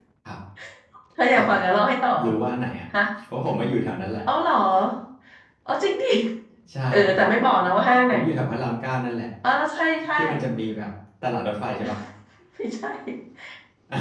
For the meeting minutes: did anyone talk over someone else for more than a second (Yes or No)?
No